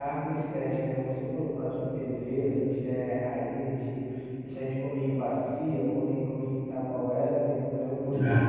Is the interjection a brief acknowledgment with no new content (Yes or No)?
Yes